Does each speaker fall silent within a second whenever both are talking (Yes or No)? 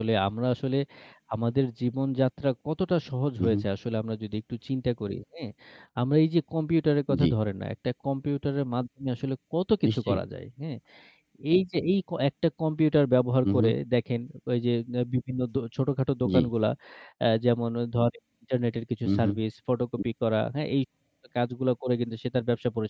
Yes